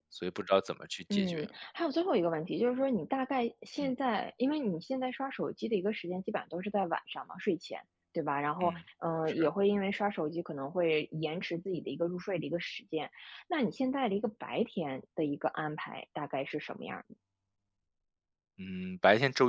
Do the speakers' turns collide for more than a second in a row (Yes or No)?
No